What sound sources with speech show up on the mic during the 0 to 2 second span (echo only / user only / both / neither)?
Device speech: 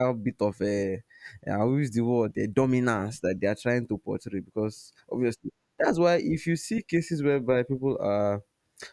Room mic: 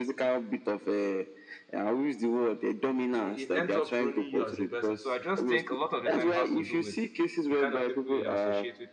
echo only